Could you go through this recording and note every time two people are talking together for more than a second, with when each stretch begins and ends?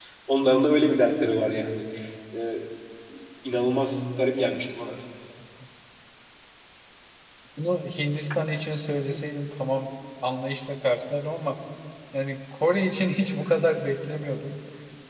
none

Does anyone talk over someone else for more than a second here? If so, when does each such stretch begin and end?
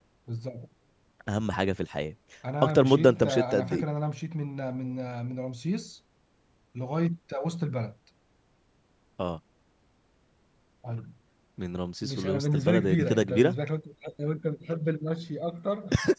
2.6-3.8, 12.0-13.5

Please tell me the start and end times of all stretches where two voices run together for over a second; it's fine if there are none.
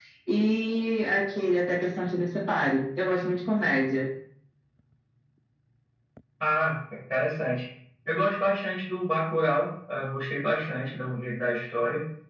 none

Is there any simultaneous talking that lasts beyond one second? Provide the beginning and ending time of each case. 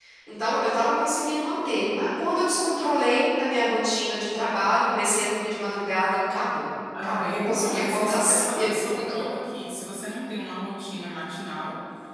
7.0-9.0

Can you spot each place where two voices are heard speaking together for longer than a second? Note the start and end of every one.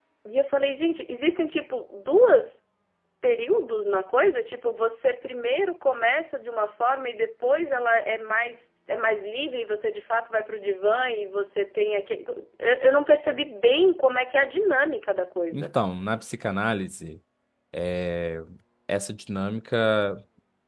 none

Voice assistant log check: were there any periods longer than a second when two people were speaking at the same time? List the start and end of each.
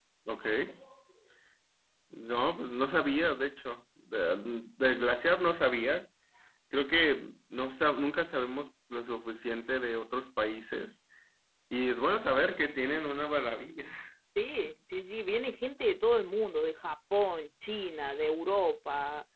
none

